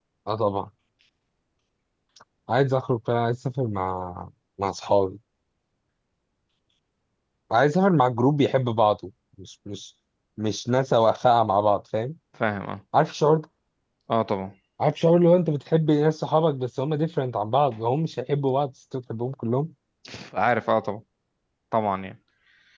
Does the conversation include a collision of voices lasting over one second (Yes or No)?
No